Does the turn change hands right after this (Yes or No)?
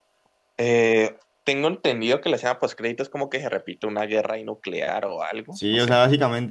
Yes